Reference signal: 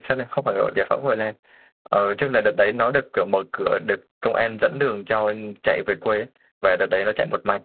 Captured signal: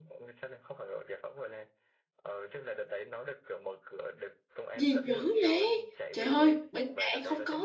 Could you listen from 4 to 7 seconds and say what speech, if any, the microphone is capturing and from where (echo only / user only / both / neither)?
both